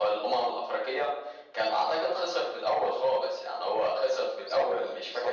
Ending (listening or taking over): listening